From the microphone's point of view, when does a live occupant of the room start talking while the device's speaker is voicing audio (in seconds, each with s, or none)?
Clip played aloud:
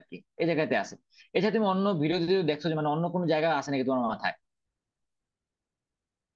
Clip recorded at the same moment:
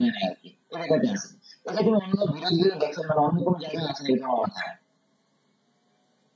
none